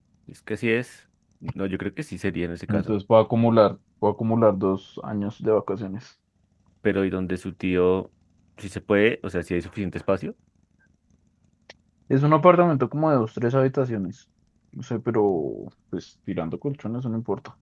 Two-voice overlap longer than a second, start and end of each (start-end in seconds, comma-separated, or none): none